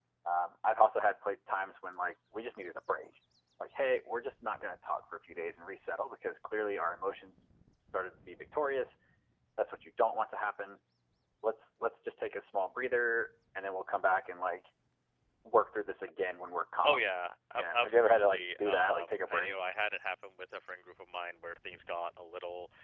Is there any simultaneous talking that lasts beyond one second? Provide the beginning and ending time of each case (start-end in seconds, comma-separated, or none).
17.5-19.6